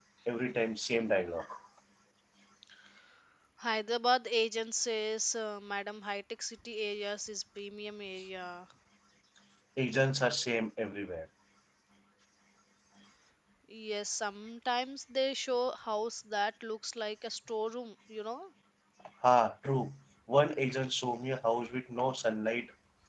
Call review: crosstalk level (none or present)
none